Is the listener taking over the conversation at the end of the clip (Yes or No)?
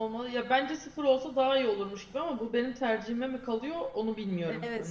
Yes